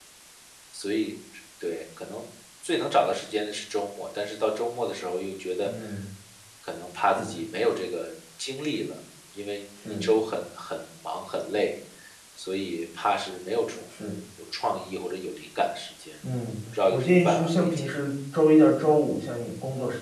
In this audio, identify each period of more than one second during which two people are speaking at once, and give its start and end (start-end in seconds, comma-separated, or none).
16.9-18.1